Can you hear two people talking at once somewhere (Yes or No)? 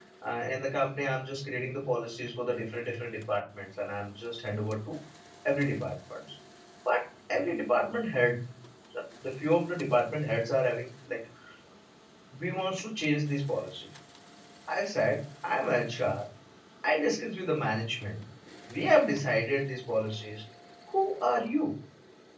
No